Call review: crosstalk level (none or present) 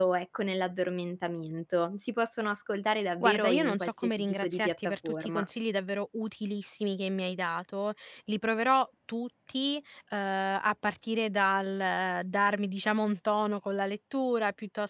present